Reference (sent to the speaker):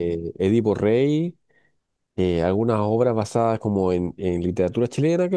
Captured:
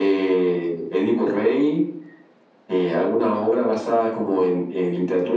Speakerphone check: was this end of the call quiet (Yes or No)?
Yes